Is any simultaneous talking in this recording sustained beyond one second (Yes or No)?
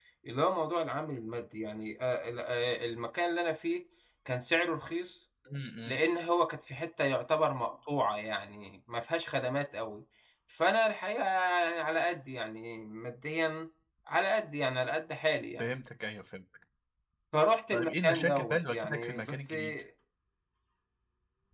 Yes